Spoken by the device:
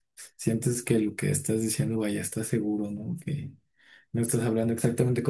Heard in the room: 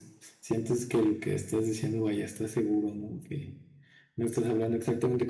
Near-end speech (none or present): none